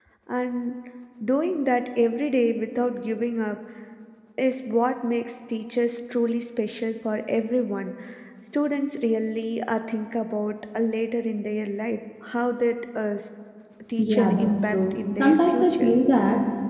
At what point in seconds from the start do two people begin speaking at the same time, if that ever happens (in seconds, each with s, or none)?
14.0 s